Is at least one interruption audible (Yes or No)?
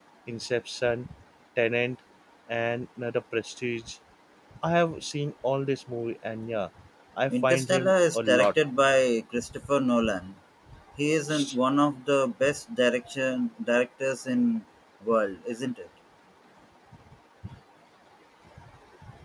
Yes